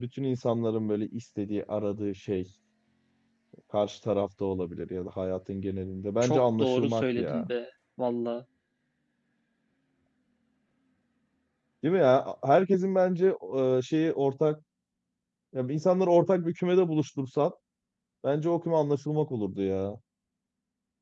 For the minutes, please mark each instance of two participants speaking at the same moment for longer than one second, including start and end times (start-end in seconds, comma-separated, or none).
6.2-7.5